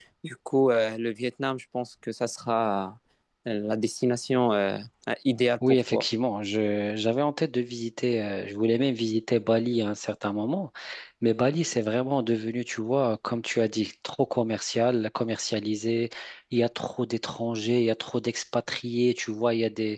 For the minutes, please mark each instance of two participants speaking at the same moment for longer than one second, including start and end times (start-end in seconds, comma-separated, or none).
none